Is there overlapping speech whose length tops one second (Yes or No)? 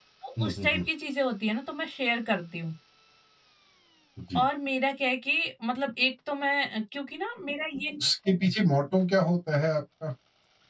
No